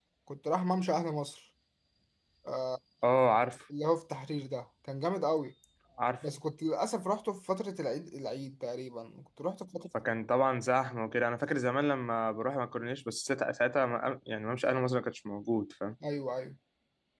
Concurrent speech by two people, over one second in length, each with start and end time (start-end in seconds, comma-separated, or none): none